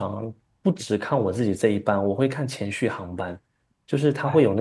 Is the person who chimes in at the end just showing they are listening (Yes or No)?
Yes